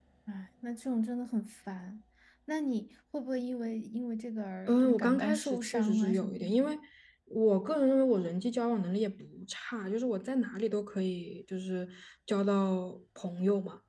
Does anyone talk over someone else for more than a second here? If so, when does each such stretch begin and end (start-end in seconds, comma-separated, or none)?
4.7-6.7